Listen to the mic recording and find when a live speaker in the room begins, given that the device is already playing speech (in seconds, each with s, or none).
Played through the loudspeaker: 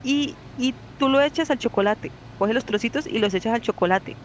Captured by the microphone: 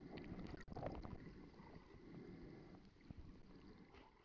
none